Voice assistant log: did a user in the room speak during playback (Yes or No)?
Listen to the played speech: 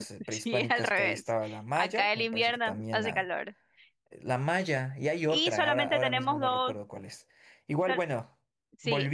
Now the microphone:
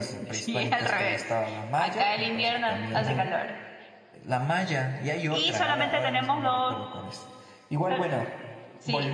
Yes